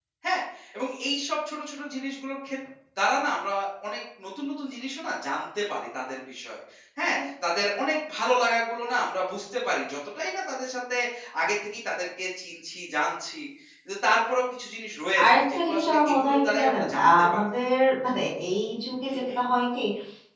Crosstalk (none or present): present